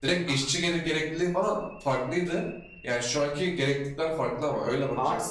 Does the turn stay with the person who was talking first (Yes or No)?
Yes